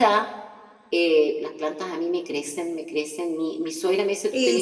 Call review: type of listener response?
listening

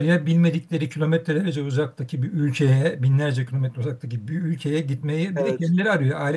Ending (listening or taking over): listening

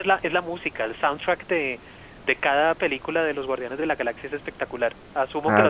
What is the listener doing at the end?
taking over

